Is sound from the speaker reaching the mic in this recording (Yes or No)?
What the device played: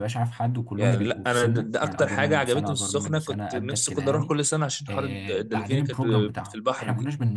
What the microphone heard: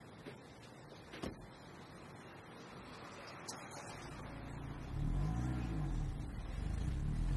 No